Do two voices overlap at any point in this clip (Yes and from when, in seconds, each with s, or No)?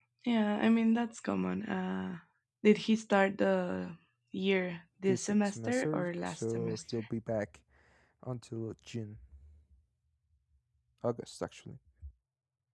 Yes, from 5.1 s